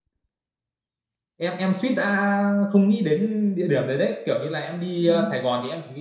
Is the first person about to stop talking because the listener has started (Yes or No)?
No